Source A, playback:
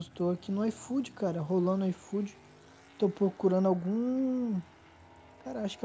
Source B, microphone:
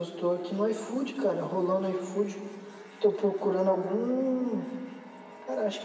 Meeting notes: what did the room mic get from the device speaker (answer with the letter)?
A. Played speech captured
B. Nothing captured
A